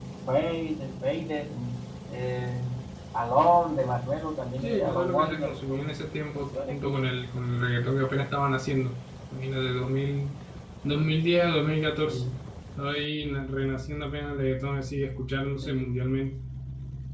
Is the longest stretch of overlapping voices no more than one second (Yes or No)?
No